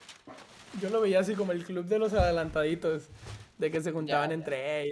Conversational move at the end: listening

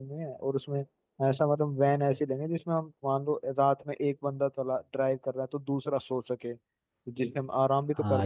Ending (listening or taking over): taking over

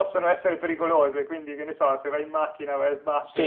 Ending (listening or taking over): taking over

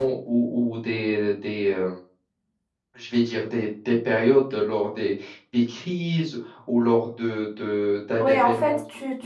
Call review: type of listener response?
taking over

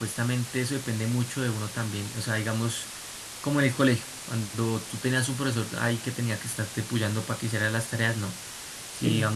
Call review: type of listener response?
listening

